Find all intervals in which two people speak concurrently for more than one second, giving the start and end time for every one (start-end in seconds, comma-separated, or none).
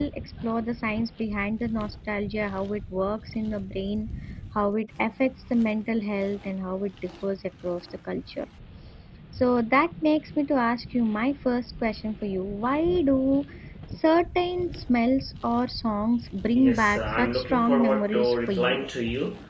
16.6-18.9